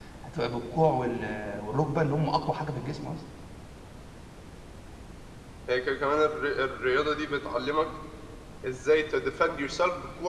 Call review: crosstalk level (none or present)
none